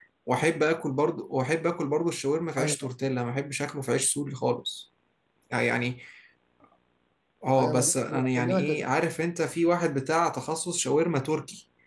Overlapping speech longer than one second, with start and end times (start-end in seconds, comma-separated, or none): 7.6-8.9